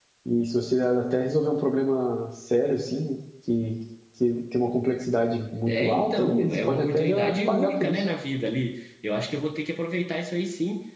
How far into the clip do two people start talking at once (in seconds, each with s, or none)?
5.7 s